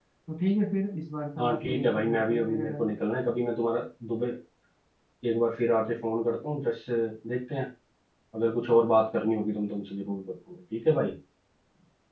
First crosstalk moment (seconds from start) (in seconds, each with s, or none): 1.4 s